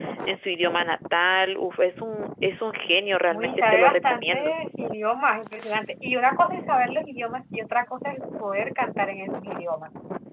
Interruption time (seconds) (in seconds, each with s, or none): 3.3 s